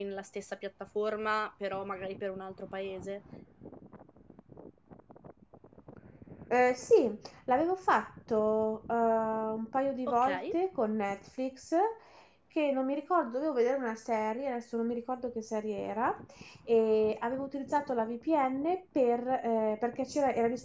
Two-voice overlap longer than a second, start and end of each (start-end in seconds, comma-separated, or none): none